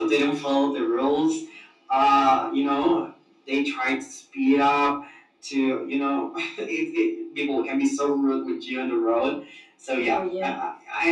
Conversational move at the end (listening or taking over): listening